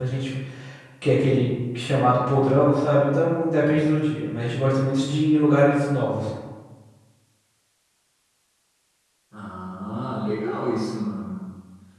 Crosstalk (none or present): none